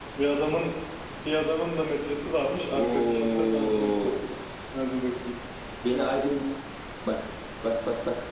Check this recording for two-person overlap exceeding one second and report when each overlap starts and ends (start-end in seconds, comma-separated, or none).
2.7-4.2